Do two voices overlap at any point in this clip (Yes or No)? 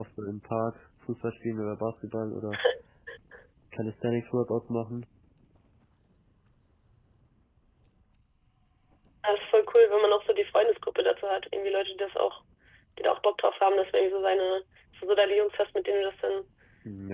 No